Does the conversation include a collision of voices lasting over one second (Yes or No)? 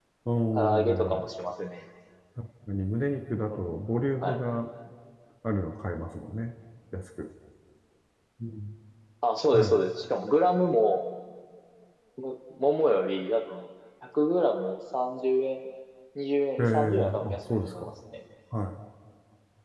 Yes